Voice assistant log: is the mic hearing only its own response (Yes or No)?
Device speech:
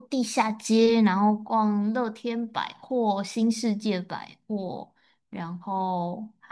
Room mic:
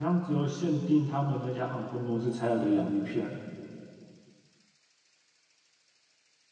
No